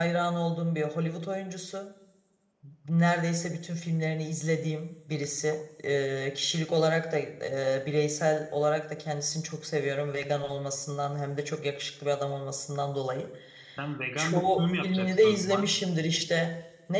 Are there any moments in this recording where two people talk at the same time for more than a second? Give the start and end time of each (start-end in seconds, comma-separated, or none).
14.2-15.7